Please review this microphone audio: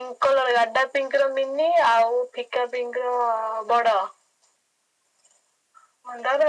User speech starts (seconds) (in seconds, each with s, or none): none